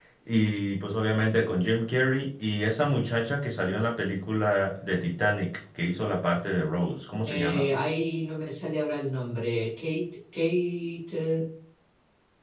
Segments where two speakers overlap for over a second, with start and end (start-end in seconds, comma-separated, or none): none